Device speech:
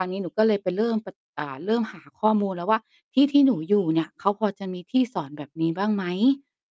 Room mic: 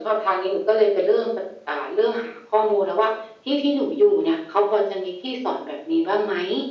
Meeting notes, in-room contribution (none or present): none